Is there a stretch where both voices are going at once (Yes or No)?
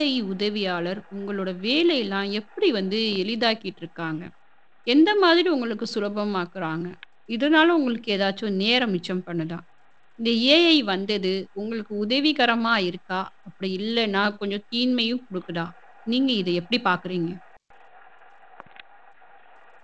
No